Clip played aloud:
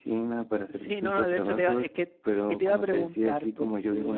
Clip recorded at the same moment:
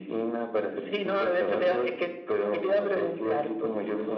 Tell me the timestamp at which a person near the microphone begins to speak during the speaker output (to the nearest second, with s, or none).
none